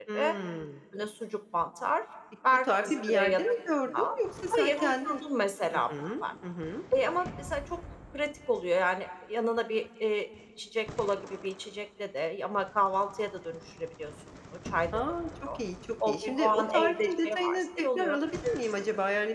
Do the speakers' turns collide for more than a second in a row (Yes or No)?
Yes